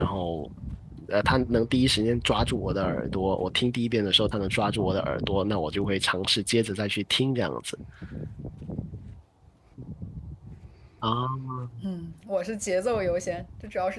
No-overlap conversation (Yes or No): Yes